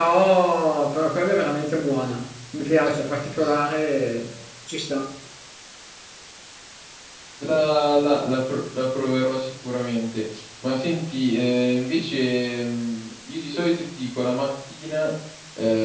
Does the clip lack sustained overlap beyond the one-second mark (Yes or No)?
Yes